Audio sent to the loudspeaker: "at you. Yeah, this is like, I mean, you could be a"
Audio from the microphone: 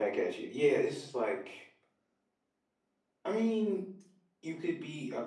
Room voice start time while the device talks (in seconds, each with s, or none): none